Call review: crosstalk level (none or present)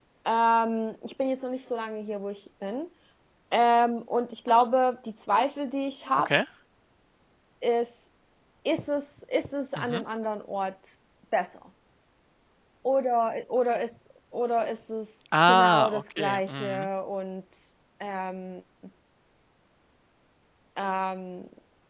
present